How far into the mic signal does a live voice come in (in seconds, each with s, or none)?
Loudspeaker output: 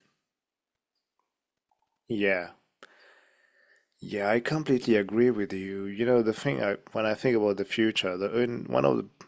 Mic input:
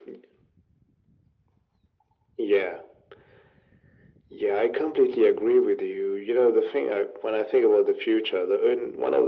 none